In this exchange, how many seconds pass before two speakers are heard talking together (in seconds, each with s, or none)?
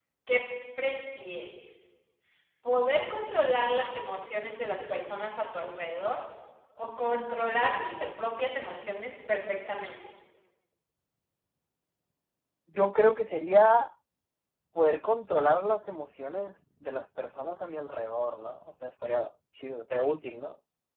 none